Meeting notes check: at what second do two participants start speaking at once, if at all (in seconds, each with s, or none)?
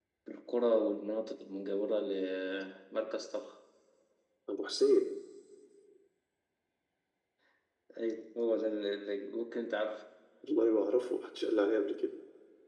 none